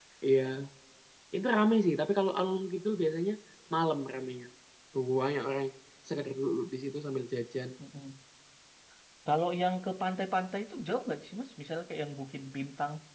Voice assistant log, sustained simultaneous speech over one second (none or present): none